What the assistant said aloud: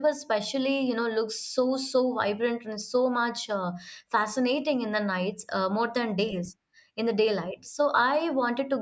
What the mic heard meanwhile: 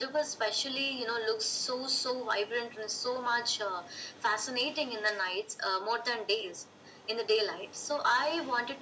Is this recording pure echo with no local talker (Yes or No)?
Yes